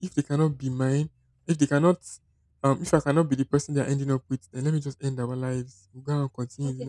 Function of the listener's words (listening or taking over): taking over